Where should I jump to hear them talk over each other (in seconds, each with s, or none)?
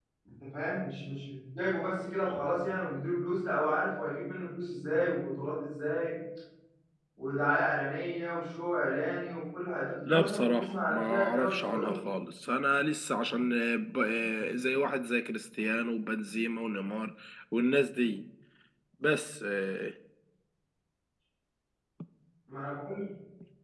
10.1 s